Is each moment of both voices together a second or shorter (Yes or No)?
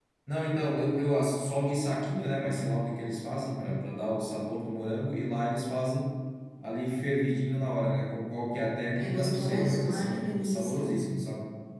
No